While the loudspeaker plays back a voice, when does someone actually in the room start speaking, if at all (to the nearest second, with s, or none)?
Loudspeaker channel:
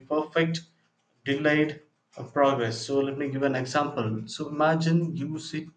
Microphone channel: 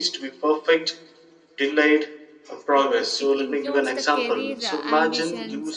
3 s